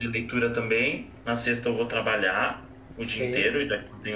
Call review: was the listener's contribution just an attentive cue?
Yes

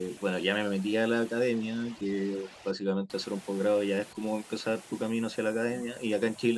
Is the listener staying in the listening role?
Yes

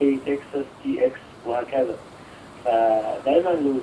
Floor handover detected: No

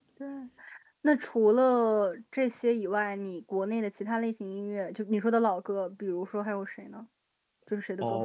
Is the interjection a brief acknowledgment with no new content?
No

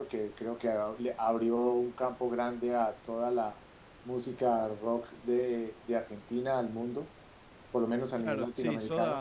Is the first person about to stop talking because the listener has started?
Yes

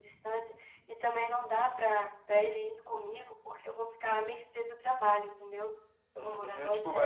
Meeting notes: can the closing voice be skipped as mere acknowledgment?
No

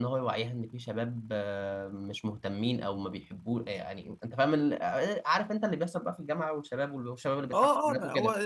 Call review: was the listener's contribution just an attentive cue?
No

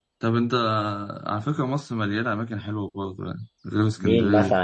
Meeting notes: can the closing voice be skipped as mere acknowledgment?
No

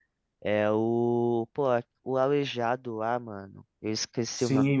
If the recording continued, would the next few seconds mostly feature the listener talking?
Yes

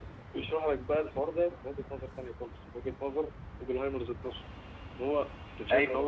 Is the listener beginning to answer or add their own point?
No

